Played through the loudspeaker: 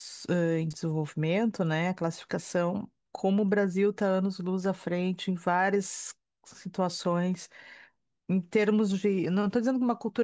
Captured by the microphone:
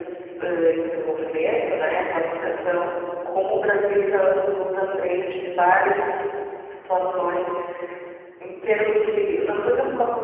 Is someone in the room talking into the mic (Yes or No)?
No